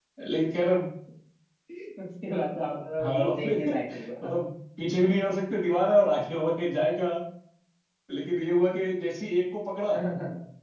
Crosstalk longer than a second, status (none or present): present